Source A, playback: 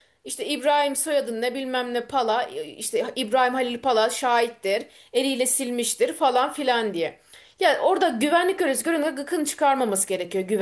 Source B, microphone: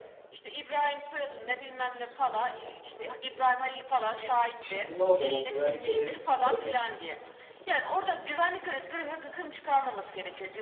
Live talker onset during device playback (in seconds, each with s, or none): 4.6 s